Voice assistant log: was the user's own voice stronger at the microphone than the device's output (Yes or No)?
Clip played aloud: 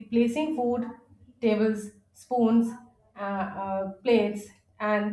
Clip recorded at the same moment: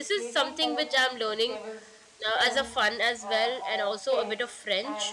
Yes